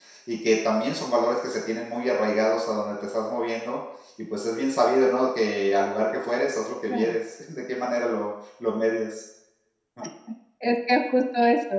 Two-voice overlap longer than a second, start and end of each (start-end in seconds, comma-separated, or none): none